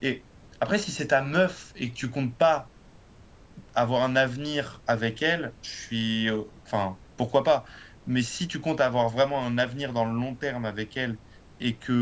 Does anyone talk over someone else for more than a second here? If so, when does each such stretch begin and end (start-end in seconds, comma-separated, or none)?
none